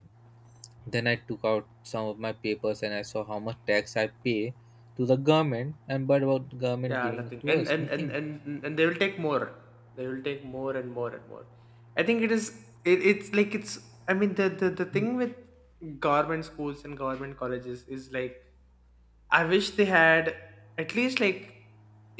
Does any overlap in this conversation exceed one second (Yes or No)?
Yes